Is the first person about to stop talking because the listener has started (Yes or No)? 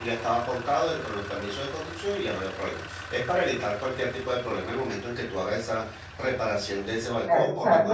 Yes